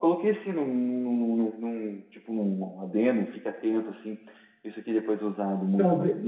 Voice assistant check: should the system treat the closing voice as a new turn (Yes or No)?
Yes